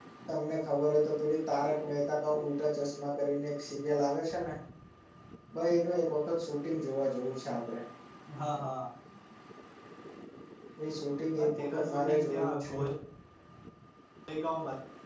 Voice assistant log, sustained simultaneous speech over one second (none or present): present